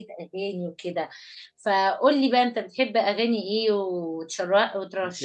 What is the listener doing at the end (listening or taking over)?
taking over